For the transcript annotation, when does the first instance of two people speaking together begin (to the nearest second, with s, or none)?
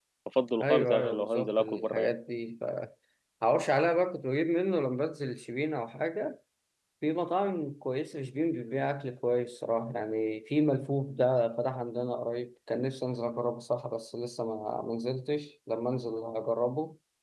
1 s